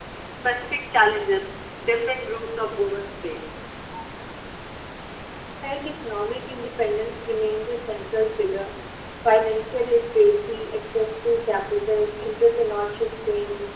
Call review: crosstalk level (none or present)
none